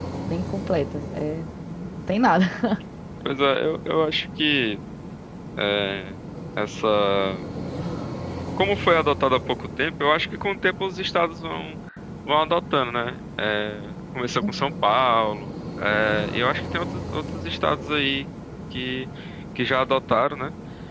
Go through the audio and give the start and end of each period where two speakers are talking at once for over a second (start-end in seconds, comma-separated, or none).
none